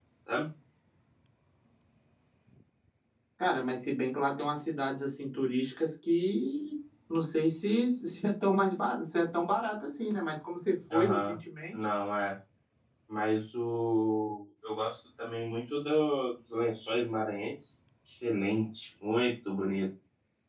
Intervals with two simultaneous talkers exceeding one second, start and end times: none

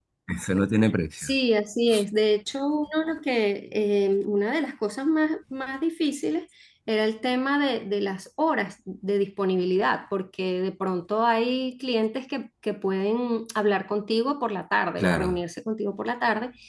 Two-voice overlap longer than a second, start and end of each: none

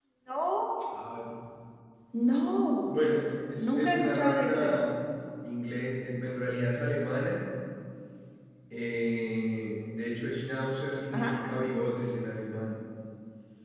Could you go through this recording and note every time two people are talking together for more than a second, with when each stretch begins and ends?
3.6-4.8

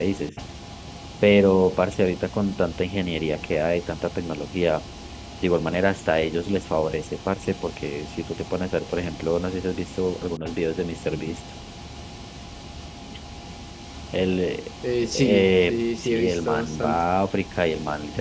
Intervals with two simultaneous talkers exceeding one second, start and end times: 15.0-17.0

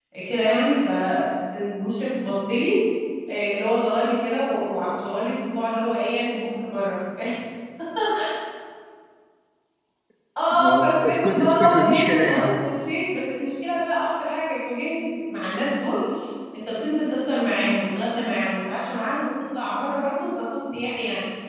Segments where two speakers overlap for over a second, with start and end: 10.6-12.4

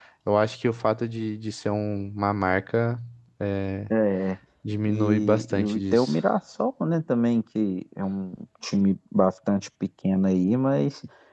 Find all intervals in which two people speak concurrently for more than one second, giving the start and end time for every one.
4.9-6.1

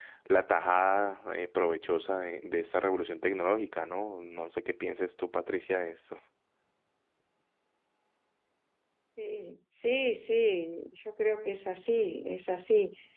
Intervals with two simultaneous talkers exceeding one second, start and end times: none

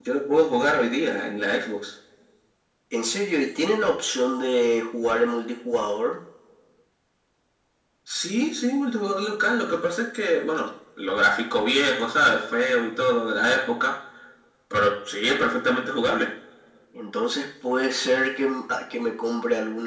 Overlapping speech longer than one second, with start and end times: none

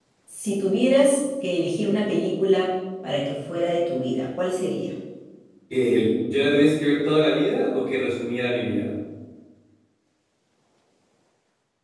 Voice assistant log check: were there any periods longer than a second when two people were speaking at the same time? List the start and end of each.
none

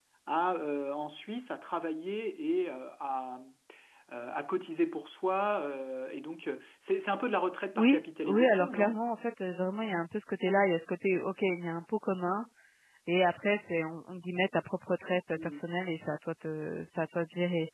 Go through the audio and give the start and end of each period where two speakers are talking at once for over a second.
7.8-9.0

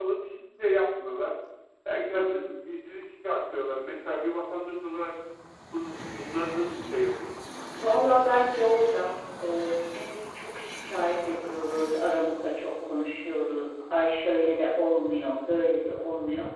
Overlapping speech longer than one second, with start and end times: none

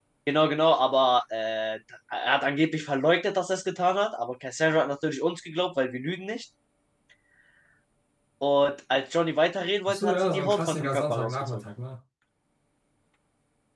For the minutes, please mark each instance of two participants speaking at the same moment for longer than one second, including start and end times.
9.9-11.6

